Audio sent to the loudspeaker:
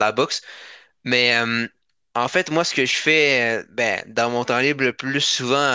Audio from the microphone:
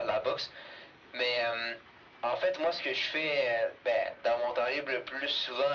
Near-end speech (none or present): none